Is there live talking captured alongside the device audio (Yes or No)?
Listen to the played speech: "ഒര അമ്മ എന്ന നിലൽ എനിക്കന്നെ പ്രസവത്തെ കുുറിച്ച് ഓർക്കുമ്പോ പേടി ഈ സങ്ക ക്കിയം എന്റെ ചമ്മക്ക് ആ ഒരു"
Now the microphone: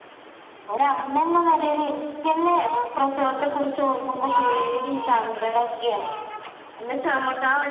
No